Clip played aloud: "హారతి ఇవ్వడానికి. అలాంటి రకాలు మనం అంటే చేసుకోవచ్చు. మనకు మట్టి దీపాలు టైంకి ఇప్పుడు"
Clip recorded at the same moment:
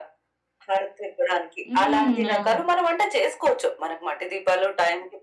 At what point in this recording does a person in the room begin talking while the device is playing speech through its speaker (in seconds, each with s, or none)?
1.7 s